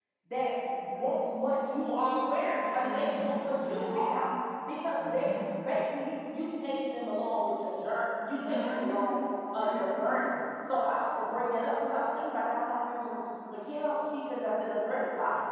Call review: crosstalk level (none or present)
present